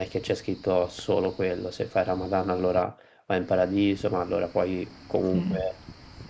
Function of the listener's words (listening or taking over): listening